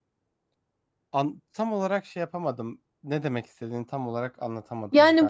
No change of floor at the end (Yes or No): No